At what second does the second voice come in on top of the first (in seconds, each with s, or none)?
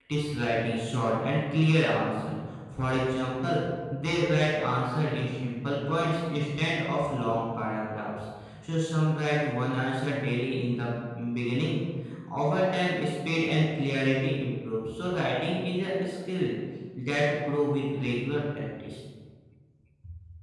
none